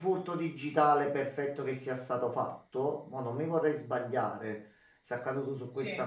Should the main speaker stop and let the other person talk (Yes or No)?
No